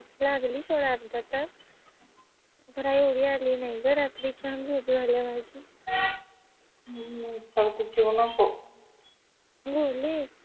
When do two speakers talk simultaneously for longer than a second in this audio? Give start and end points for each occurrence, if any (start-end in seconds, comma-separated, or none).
none